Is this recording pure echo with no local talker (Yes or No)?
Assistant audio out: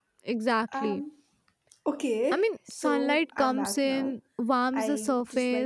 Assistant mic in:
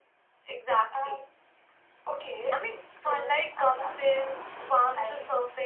Yes